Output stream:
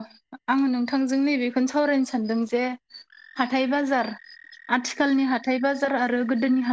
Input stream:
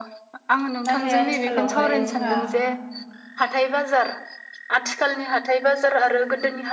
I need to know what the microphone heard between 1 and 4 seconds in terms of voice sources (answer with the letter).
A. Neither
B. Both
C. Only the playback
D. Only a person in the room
B